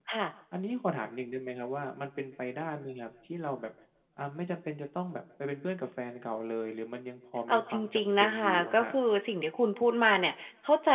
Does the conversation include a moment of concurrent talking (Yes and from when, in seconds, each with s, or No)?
Yes, from 7.5 s